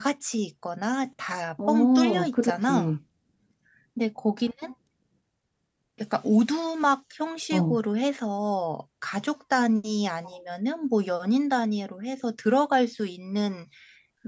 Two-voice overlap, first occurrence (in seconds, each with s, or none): 1.6 s